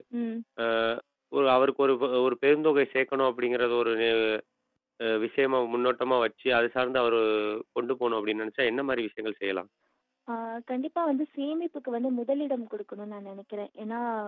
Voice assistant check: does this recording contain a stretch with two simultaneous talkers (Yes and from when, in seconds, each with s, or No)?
No